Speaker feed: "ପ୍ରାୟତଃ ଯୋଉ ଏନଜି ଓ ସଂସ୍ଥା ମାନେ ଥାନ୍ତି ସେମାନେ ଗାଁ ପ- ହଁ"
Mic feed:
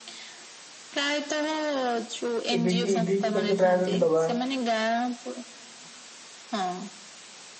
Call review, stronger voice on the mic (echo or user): user